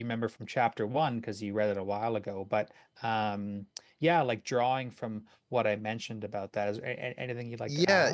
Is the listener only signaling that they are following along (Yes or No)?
No